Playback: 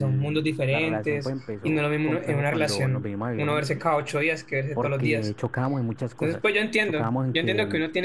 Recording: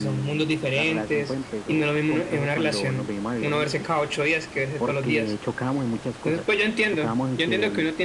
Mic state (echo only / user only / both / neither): echo only